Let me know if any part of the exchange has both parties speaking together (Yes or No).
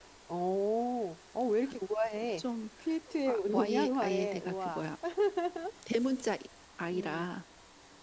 Yes